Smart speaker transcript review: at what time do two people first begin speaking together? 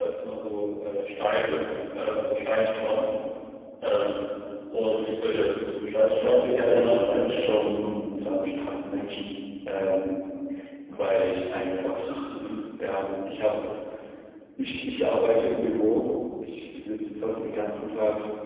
6.1 s

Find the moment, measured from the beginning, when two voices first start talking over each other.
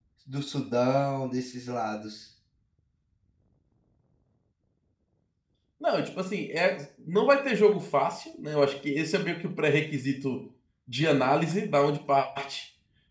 none

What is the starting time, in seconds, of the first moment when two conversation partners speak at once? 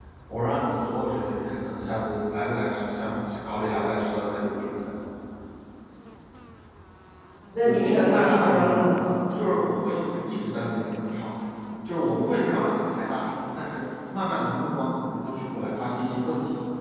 7.6 s

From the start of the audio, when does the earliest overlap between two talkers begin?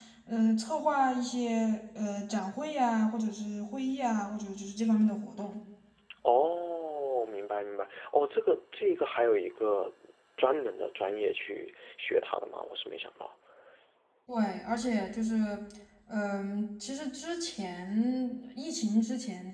none

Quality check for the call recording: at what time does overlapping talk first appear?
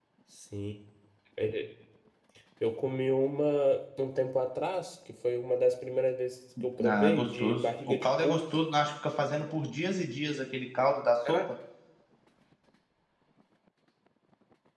6.8 s

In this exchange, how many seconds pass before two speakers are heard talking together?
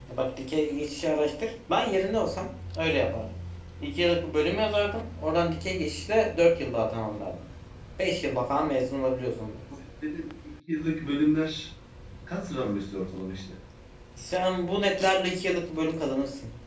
none

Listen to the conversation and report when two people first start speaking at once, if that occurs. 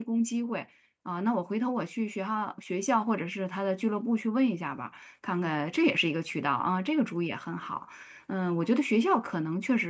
none

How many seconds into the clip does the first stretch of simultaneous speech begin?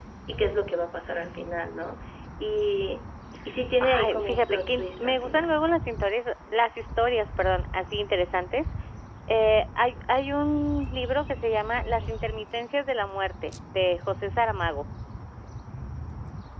3.8 s

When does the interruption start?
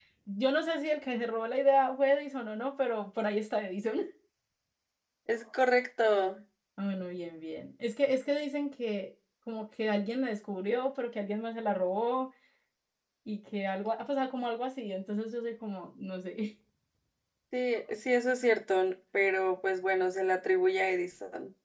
none

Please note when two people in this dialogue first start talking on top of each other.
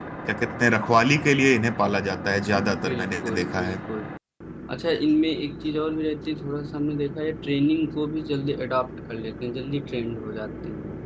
2.5 s

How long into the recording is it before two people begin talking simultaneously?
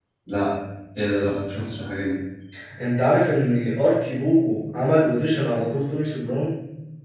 none

